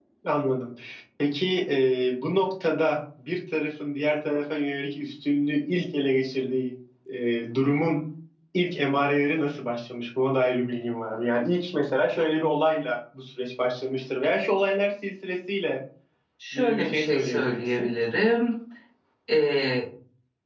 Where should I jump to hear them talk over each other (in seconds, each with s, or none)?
16.5 s